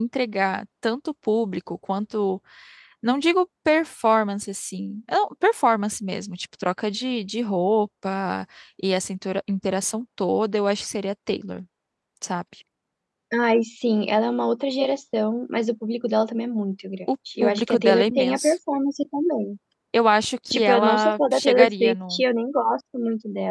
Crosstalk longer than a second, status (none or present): present